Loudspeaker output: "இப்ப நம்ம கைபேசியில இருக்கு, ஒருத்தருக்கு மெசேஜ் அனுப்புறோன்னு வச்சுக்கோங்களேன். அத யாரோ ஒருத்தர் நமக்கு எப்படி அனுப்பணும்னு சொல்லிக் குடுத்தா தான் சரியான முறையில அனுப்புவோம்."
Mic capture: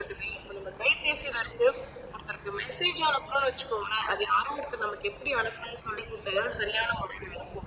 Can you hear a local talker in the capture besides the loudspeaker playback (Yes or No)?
No